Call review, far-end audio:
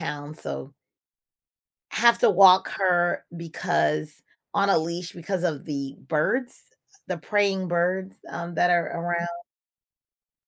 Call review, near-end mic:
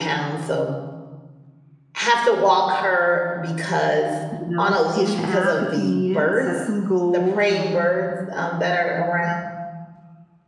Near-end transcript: you know, get an app if you need it and set some goals and

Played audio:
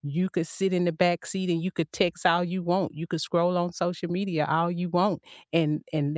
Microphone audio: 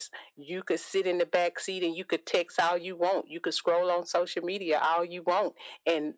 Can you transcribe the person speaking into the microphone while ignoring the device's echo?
none

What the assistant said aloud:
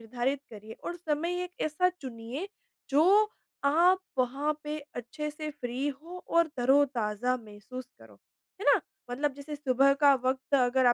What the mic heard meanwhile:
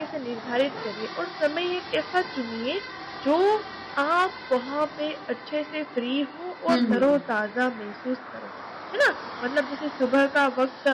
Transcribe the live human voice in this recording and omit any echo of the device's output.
हुँ।

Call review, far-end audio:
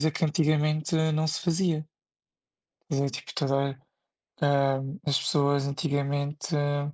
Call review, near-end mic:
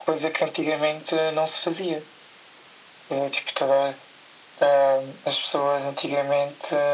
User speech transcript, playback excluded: none

